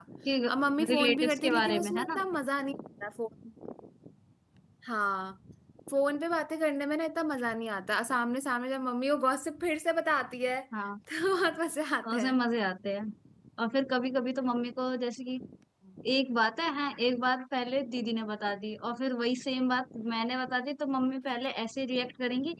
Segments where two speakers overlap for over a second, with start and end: 0.9-2.2

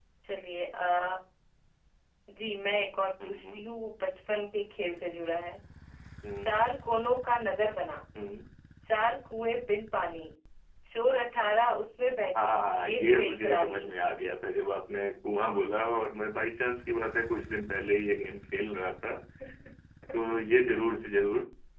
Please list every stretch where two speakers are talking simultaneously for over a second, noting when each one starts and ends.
12.4-13.9

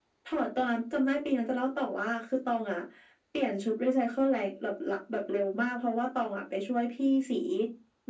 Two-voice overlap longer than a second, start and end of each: none

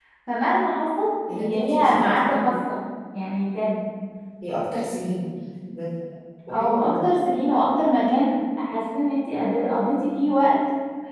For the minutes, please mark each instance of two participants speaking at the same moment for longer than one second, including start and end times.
1.3-2.5

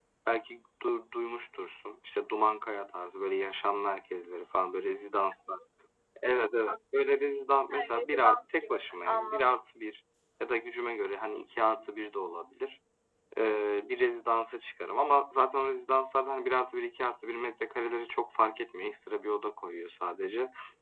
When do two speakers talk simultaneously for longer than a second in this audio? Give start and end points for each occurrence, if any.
7.7-9.4

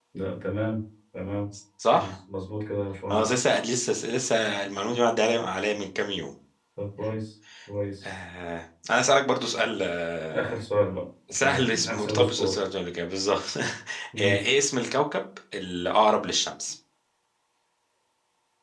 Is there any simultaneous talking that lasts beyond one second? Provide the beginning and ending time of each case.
11.3-12.6

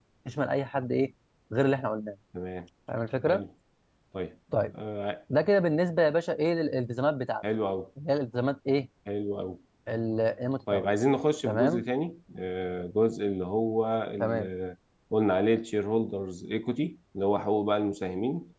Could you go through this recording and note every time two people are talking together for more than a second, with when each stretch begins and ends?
none

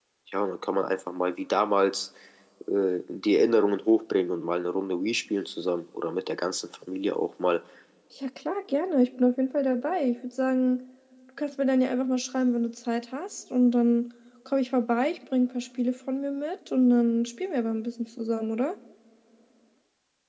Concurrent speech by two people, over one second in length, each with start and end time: none

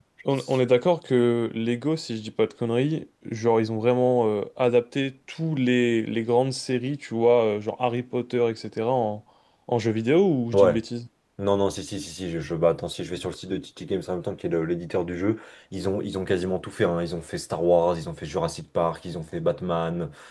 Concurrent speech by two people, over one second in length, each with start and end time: none

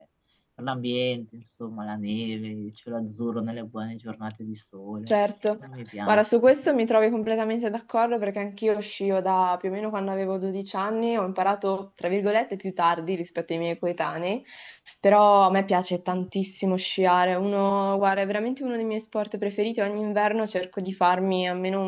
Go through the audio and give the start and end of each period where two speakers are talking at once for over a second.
none

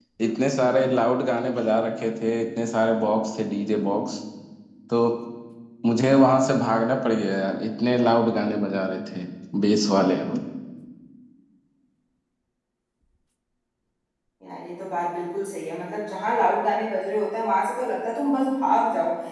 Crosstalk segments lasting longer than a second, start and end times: none

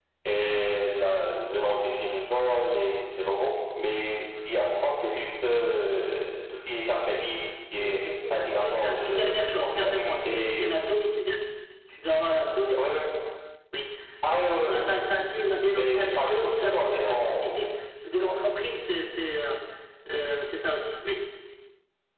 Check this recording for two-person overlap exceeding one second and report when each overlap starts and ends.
8.3-10.7, 15.7-17.4

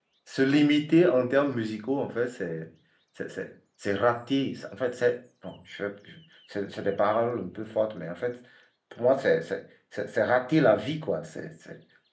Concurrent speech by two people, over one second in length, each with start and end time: none

